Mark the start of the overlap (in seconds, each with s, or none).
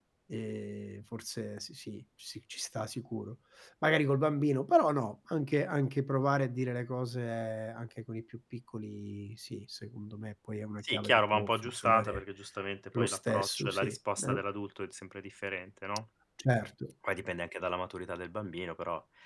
10.8 s